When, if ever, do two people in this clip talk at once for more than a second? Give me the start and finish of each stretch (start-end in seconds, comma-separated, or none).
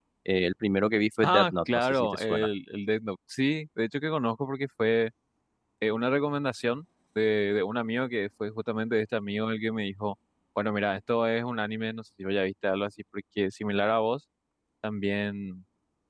1.2-2.5